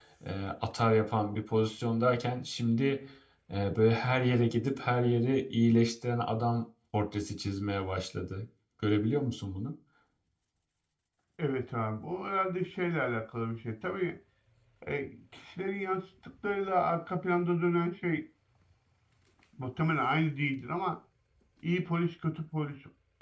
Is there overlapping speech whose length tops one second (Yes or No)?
No